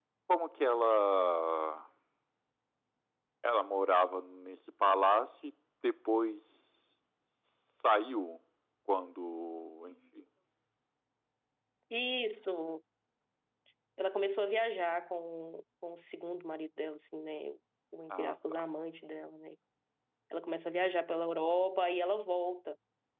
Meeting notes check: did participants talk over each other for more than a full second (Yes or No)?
No